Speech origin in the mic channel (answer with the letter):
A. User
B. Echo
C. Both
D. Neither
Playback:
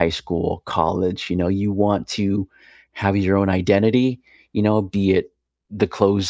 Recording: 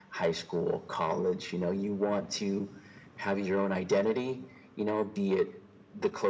B